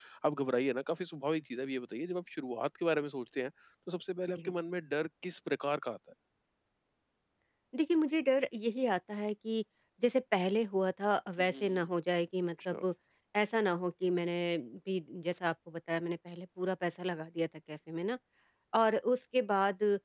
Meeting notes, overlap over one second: none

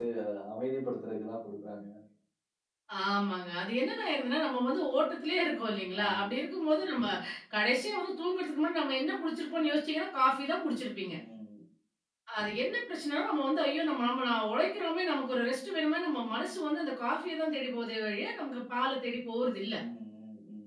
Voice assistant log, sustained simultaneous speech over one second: none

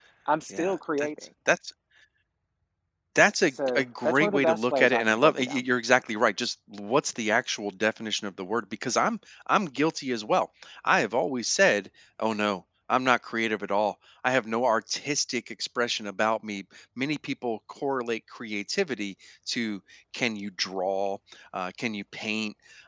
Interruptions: present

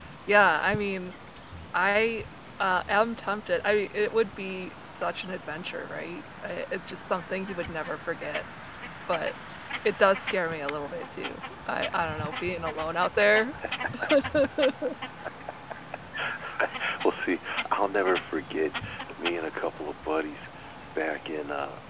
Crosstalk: none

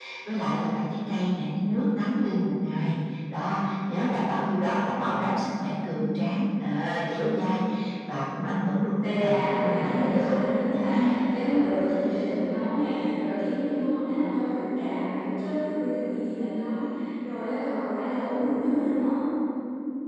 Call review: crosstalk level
present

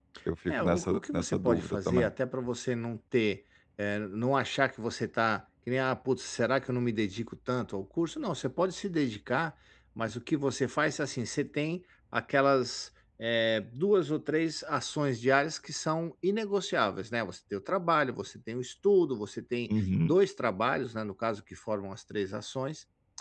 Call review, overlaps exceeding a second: present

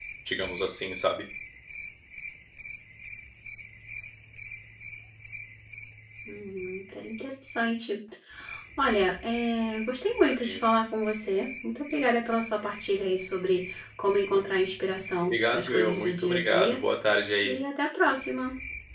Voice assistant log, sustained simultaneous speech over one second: present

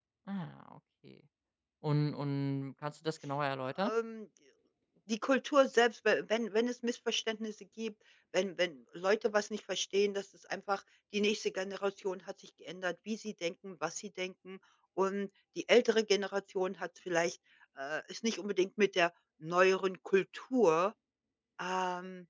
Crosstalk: none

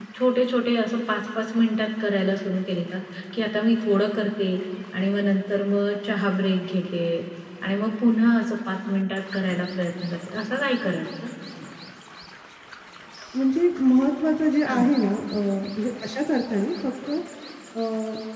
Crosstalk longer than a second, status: none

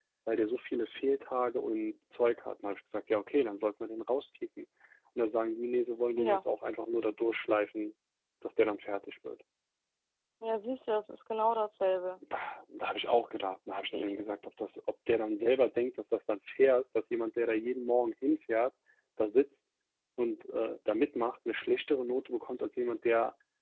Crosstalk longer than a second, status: none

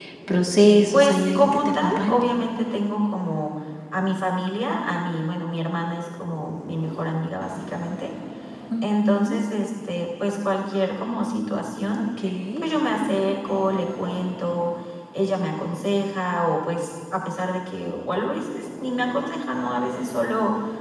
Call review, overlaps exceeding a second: present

